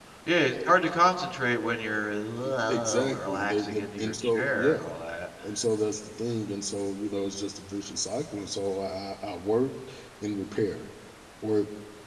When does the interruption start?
2.7 s

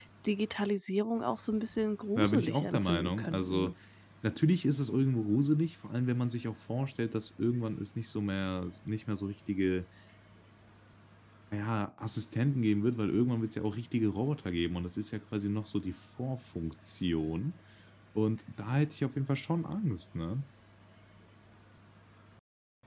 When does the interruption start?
2.1 s

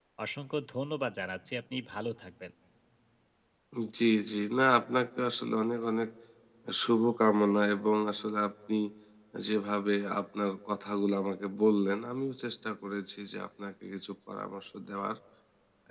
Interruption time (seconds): none

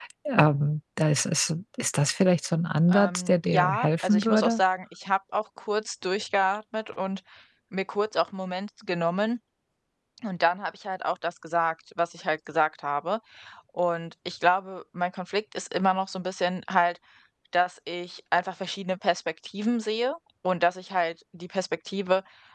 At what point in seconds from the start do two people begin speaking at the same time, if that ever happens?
2.9 s

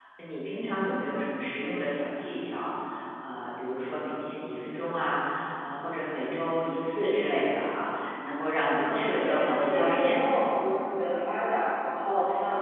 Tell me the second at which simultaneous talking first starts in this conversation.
8.8 s

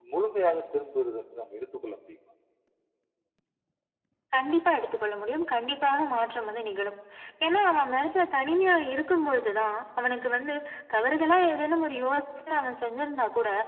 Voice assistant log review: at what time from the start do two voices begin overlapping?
none

